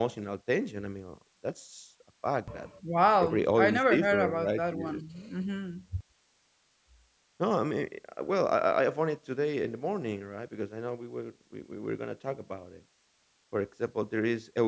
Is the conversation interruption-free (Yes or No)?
No